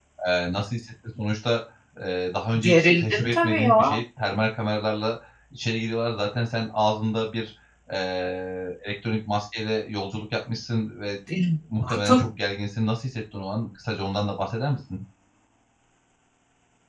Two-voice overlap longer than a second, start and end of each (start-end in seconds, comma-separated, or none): 2.6-4.0